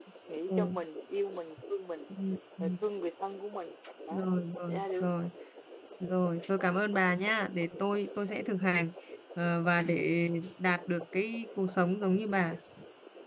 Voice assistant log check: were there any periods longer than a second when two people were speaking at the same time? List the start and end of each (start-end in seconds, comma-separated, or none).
none